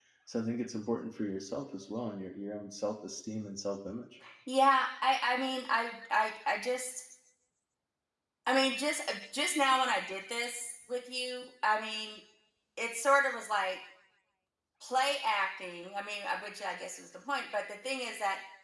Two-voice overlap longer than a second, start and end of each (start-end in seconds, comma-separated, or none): none